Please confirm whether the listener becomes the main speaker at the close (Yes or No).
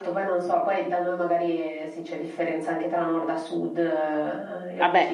Yes